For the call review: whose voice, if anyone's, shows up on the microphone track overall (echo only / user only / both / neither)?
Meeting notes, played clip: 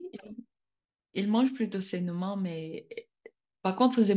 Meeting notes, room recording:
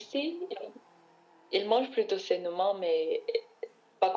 echo only